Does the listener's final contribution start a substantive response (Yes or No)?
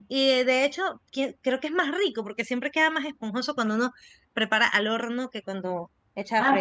Yes